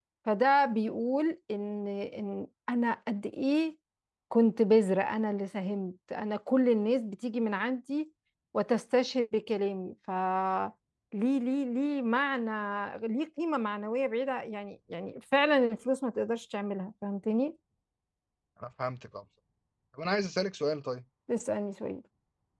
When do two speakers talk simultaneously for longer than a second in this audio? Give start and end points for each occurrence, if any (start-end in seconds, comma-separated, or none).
none